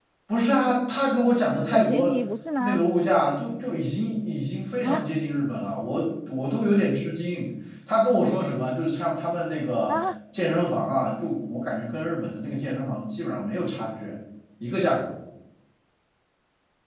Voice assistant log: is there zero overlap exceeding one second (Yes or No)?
Yes